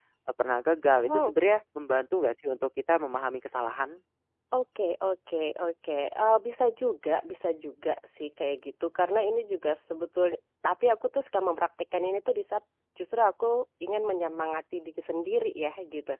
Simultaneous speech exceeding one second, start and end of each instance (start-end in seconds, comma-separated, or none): none